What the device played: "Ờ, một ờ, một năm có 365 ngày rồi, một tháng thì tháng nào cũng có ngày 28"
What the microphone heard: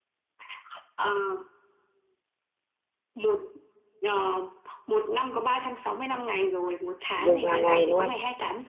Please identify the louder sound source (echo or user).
user